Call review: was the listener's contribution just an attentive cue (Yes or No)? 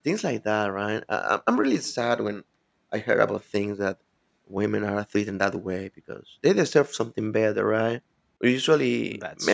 Yes